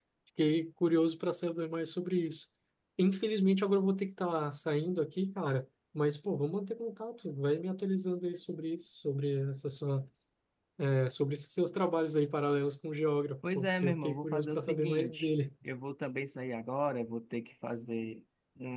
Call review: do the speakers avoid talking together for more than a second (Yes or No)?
No